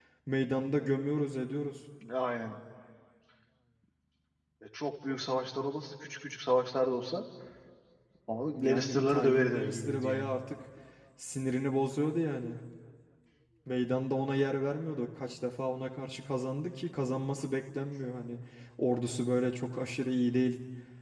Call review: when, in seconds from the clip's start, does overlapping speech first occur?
9 s

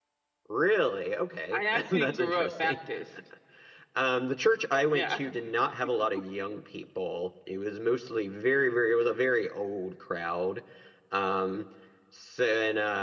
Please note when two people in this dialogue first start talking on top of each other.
2 s

